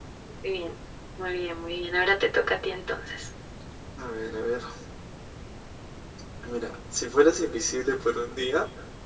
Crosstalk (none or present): none